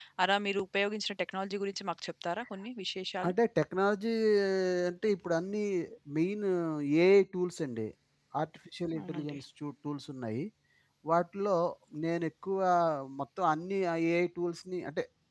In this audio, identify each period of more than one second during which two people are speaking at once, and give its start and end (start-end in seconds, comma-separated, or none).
none